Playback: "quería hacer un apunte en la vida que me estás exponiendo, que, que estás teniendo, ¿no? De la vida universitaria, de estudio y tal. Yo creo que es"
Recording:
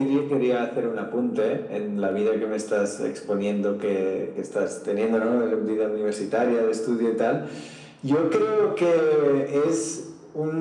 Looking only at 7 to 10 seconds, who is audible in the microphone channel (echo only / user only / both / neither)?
echo only